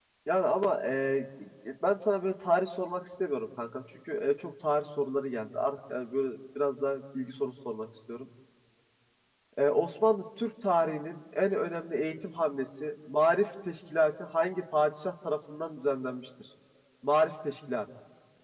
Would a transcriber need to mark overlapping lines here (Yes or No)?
No